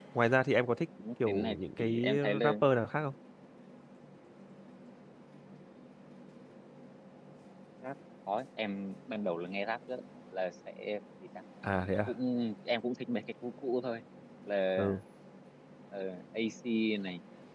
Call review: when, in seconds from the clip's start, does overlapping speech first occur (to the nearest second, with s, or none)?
1 s